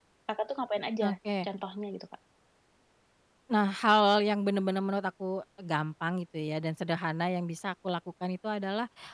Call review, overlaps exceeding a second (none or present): none